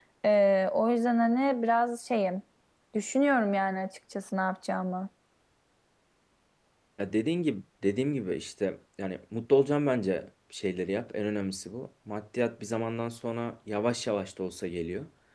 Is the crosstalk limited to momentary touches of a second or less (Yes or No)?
Yes